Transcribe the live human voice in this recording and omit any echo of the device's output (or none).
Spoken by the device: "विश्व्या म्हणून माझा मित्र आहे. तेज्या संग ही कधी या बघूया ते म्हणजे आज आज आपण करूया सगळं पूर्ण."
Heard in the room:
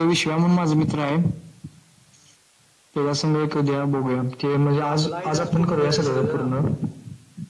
आपला इतिहास पूर्ण करायच्या सगळं.